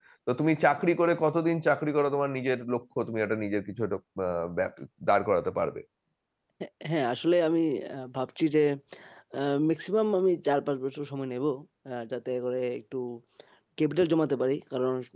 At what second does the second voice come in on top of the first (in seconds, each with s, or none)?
none